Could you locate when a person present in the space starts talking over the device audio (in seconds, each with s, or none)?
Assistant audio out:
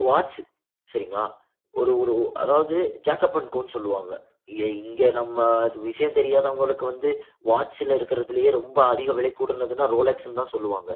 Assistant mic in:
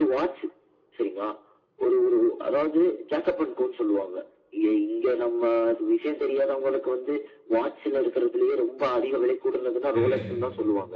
9.9 s